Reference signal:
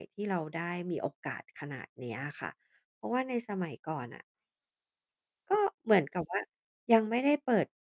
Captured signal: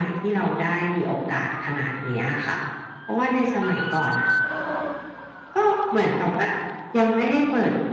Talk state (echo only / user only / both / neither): echo only